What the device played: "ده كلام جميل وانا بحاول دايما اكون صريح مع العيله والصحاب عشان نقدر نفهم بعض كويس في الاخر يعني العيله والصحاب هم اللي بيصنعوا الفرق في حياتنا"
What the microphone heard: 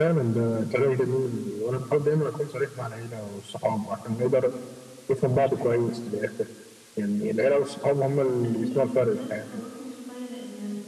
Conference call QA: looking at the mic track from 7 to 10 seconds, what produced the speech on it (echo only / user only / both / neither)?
both